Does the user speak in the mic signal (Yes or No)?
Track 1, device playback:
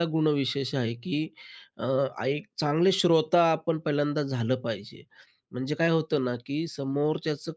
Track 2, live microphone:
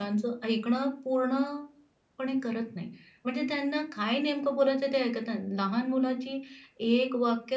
Yes